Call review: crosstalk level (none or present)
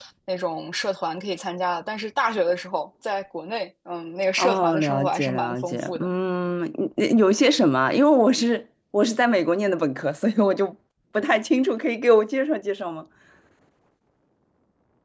present